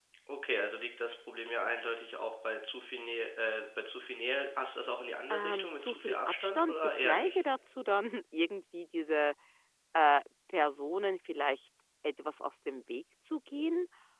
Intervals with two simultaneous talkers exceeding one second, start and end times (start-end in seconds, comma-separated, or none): 5.3-7.4